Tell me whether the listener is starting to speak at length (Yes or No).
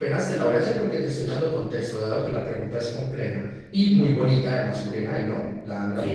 Yes